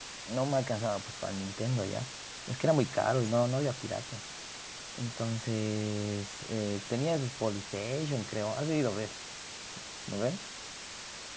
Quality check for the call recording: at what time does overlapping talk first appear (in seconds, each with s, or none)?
none